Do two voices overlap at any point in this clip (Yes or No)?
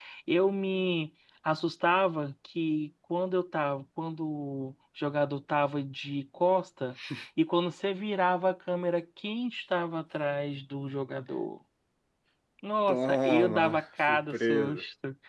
Yes